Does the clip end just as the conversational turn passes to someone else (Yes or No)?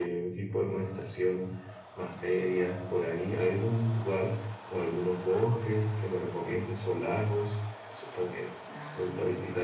Yes